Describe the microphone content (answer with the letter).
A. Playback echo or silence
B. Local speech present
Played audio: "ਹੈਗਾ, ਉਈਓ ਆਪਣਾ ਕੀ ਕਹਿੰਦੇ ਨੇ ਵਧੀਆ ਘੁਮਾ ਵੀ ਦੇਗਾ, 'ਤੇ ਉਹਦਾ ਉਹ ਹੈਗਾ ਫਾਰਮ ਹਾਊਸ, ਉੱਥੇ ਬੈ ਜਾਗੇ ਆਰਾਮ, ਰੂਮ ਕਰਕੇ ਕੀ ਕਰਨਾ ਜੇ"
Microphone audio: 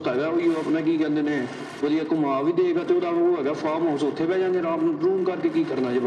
A